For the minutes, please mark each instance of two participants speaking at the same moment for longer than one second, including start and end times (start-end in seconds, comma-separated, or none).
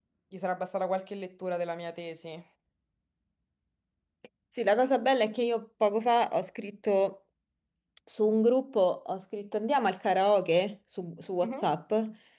none